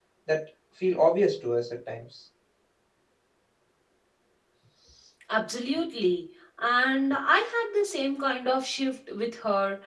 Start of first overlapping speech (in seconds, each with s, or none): none